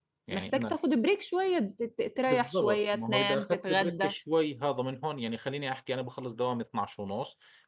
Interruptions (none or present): present